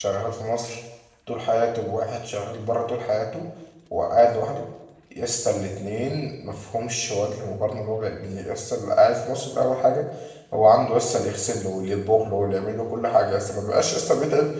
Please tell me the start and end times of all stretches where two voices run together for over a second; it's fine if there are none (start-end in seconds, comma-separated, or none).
none